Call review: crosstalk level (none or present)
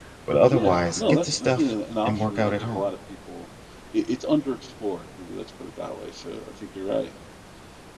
present